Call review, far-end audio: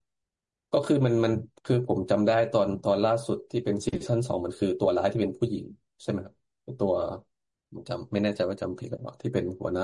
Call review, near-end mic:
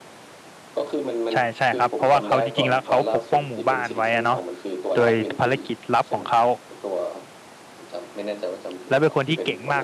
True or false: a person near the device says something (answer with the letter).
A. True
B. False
A